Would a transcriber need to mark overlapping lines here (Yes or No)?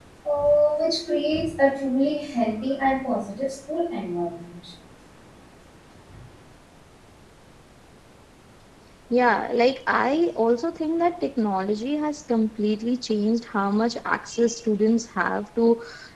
No